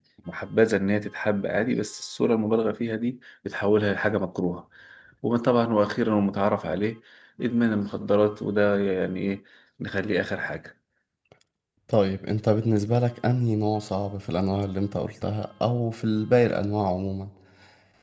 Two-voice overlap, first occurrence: none

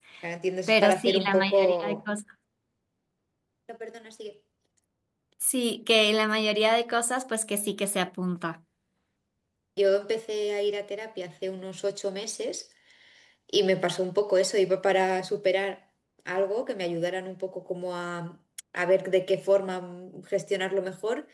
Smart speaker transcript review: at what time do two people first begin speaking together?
1 s

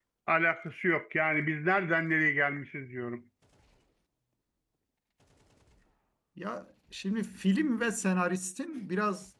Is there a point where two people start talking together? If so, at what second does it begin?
none

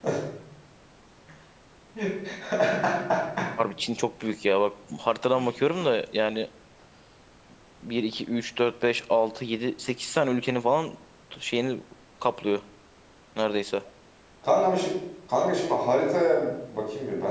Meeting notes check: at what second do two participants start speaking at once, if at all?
none

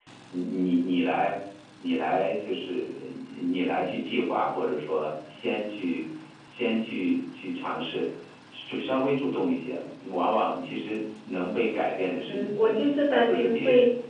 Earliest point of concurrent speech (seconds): 12 s

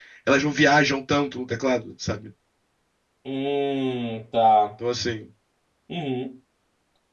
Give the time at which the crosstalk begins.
none

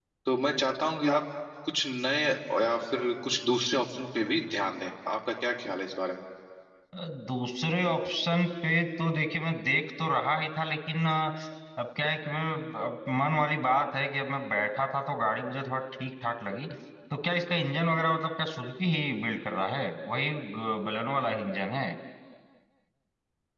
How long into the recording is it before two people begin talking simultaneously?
none

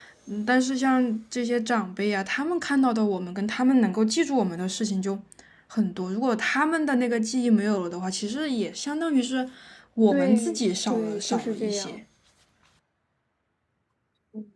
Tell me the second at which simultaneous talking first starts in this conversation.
10 s

